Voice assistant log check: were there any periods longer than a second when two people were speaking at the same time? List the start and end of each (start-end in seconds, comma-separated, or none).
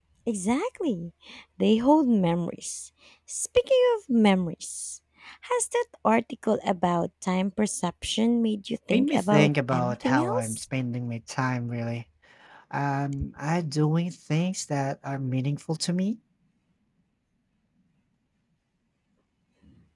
8.9-10.6